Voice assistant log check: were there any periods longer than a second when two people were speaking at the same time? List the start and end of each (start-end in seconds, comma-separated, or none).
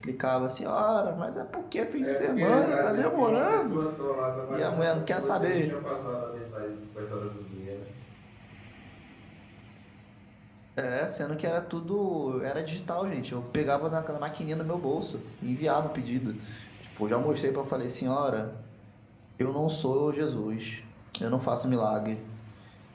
2.0-3.8, 4.5-5.7